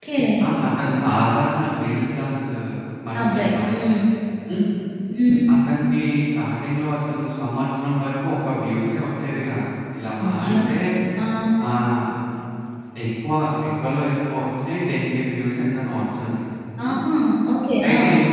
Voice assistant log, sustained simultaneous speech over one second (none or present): none